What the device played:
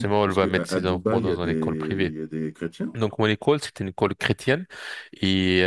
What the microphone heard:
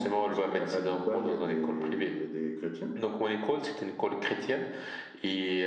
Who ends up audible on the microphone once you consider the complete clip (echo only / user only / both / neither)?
echo only